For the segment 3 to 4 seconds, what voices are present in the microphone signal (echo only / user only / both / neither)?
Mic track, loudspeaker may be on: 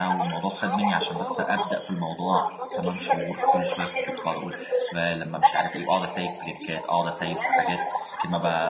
both